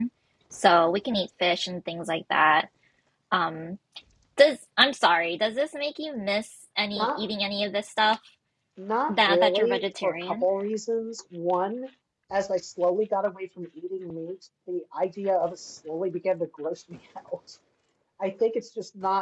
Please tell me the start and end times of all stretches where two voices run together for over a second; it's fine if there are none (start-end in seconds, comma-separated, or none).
9.1-10.4